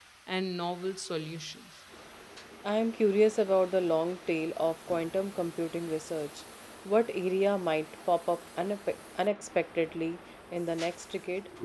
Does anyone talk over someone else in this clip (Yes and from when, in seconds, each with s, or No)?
No